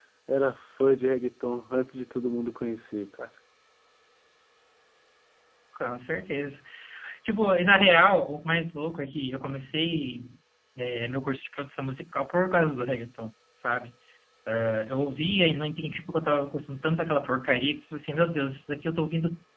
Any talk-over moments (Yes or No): No